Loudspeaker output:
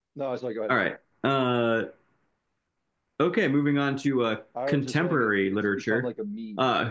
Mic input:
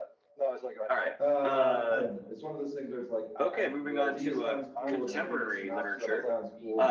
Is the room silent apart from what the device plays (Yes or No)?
No